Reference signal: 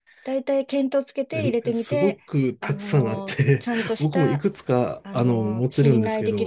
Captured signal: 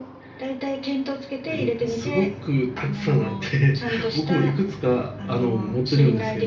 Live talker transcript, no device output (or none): none